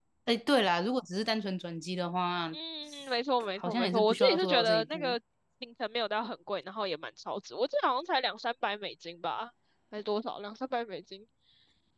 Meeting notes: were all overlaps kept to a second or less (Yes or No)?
No